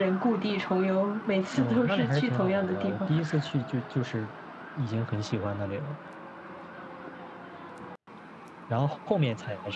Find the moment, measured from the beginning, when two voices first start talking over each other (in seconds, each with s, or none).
1.6 s